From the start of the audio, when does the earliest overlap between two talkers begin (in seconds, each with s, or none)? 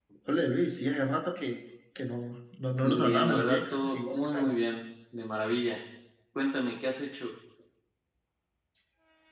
2.8 s